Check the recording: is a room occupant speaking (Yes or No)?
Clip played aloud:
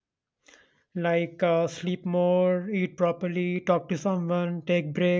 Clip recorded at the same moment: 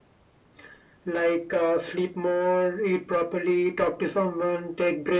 No